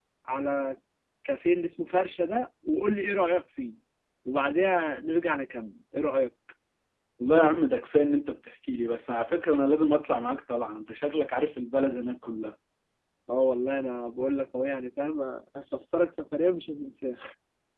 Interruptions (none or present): none